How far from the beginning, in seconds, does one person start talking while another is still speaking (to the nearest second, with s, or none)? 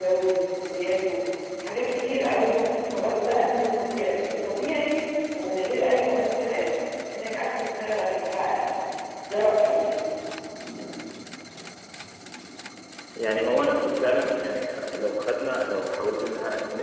none